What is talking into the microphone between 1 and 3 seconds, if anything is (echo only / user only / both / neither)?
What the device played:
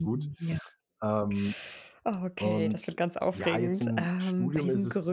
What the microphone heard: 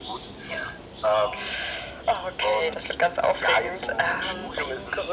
echo only